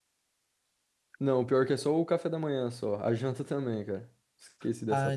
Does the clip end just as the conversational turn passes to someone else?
Yes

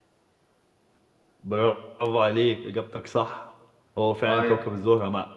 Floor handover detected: No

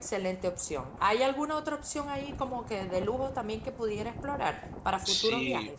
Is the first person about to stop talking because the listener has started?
Yes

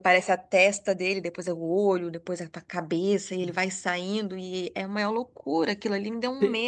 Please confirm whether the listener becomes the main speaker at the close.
Yes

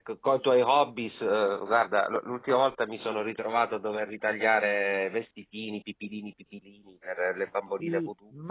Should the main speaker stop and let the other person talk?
Yes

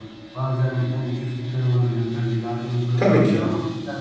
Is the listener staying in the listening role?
Yes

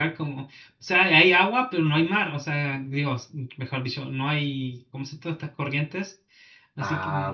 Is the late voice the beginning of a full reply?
Yes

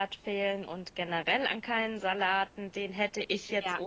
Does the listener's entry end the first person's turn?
No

